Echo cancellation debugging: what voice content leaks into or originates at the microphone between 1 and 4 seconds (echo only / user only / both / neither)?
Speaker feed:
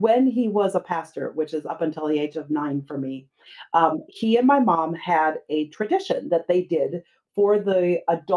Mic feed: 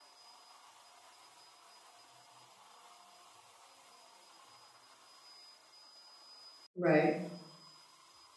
neither